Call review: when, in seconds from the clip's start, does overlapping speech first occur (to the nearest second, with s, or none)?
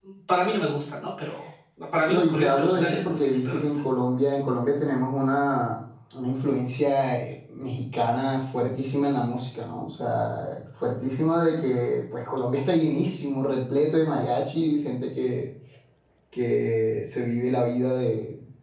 2 s